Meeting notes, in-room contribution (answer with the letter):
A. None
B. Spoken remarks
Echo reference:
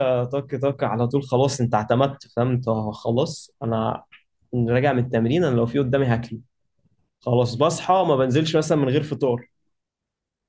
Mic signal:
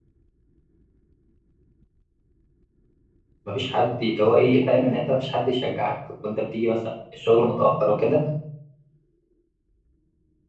B